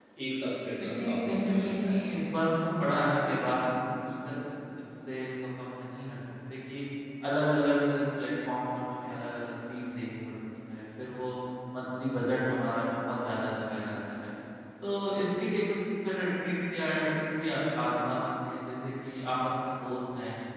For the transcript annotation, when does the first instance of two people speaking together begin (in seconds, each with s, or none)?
0.8 s